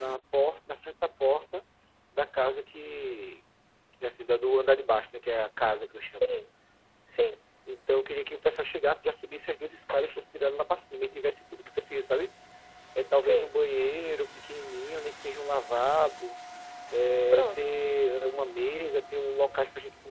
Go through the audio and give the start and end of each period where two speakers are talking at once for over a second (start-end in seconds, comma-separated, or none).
none